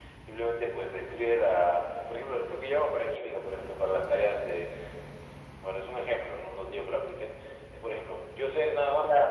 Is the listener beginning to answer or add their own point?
No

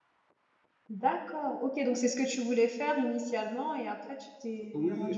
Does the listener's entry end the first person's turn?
Yes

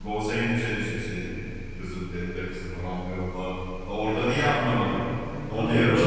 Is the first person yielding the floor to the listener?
Yes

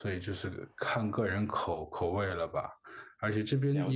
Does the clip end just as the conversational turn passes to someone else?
No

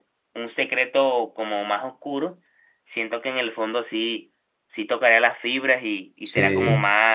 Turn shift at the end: No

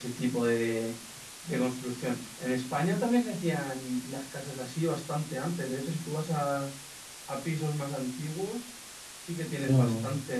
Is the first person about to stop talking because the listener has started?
No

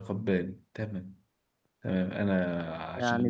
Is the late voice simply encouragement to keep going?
No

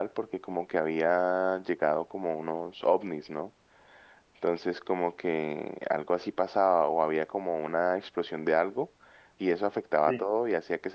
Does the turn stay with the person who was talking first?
Yes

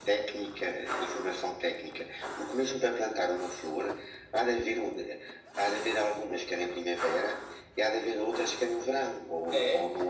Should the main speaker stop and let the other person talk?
Yes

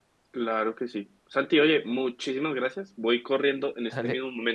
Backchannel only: Yes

